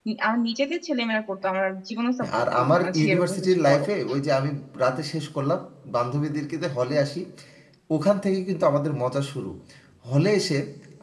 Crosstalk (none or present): present